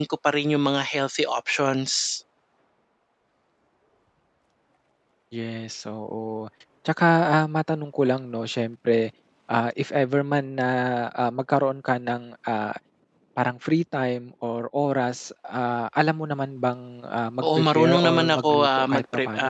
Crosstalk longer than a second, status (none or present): present